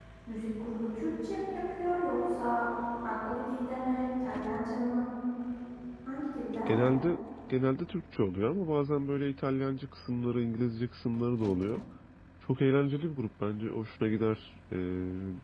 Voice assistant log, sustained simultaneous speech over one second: none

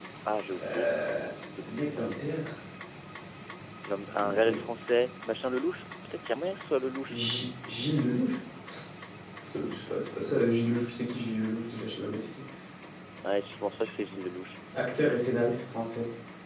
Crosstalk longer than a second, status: none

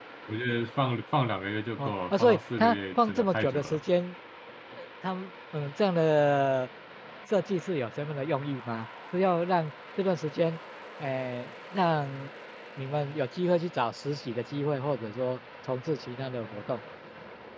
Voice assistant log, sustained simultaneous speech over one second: present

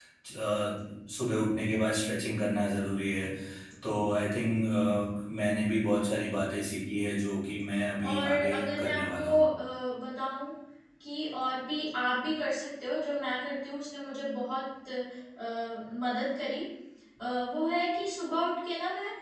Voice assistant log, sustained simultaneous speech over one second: present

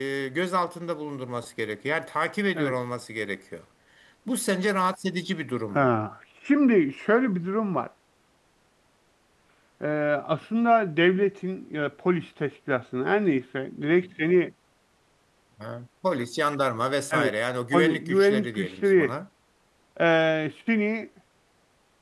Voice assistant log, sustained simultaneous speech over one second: present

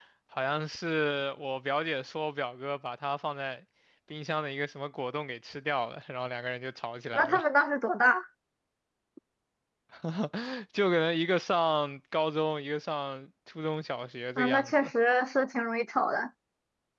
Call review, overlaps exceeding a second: none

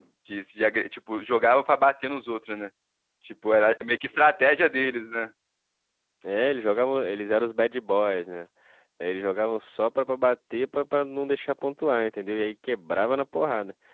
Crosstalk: none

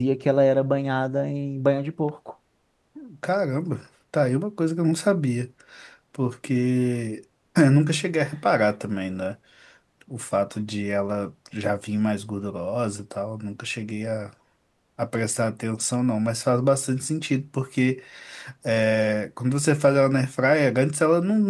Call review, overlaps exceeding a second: none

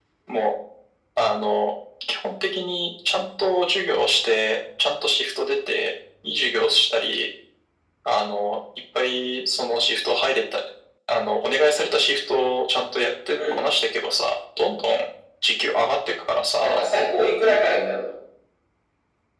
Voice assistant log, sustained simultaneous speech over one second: none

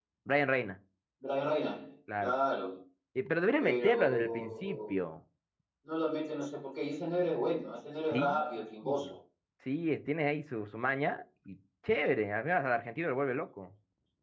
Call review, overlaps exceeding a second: present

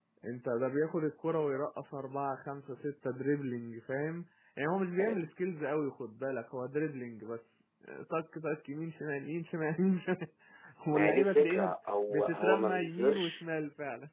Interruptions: present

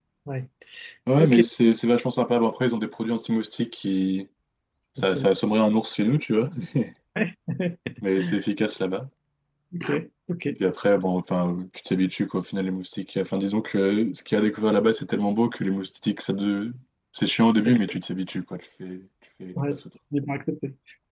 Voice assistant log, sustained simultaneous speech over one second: none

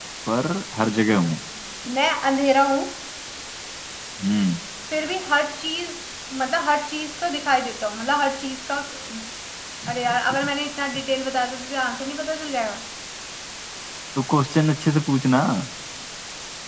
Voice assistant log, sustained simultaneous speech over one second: none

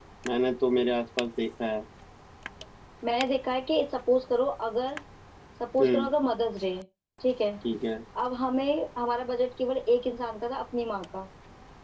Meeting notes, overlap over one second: none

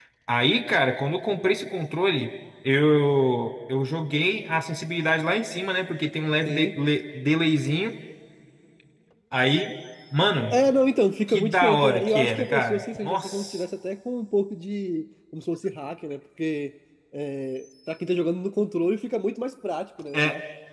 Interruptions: present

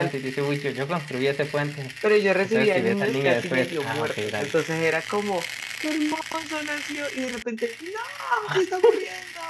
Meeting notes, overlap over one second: present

